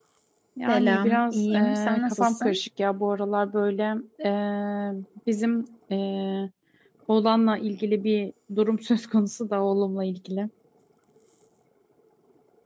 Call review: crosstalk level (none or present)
present